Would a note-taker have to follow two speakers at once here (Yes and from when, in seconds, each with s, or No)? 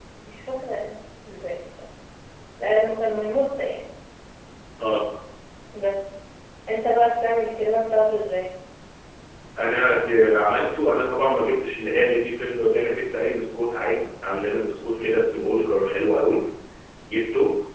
No